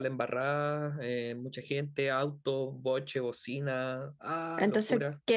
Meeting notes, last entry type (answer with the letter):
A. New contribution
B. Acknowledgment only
A